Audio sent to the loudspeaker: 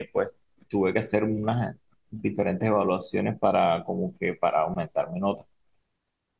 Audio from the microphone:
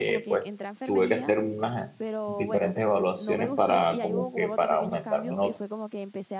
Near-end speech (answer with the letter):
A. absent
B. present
B